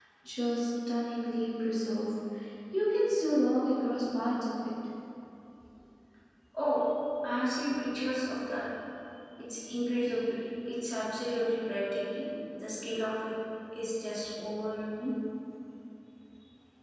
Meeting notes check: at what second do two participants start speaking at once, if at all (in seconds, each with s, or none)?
none